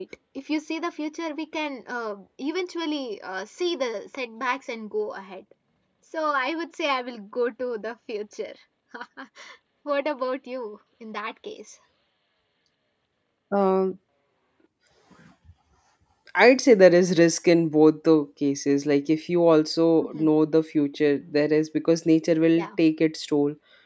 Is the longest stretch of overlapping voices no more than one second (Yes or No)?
Yes